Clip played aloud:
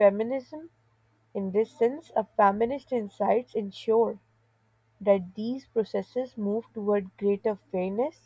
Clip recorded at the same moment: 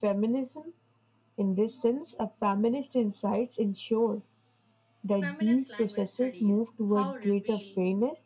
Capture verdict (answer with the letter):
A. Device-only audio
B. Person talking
B